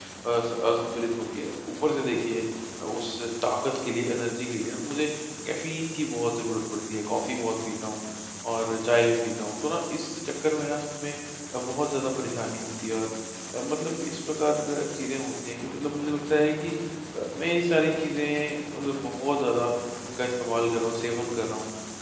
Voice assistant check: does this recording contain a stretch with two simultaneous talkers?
No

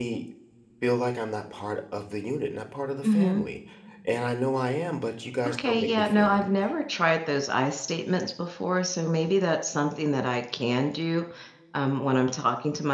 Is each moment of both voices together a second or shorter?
No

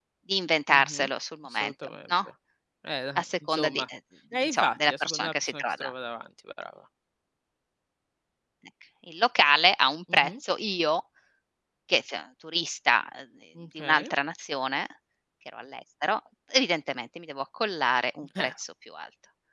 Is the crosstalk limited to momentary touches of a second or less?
No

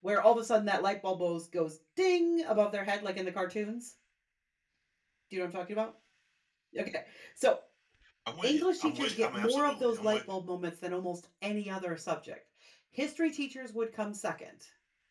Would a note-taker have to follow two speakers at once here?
Yes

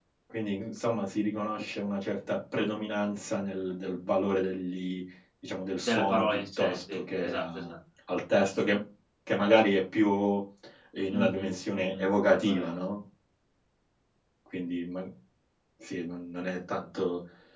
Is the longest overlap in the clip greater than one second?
Yes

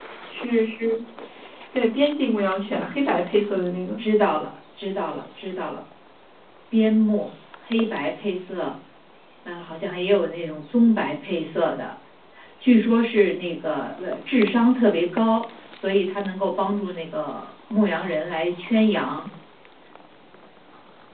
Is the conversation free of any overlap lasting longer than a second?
Yes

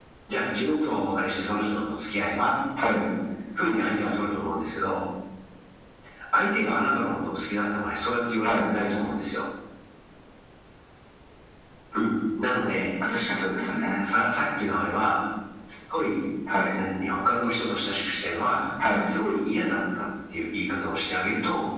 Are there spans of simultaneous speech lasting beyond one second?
No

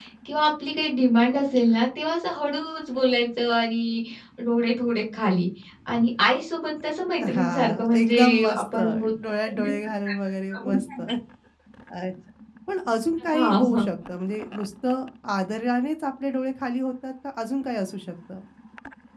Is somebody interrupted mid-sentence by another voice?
Yes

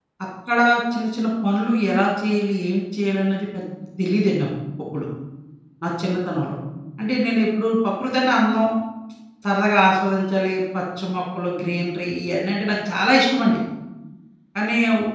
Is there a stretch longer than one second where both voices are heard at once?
No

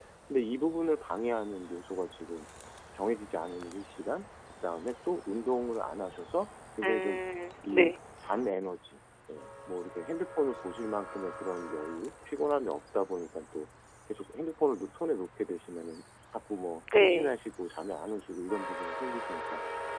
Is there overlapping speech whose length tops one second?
No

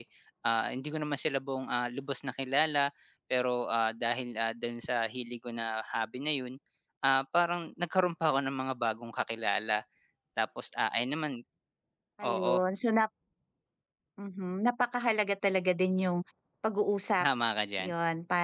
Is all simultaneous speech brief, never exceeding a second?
Yes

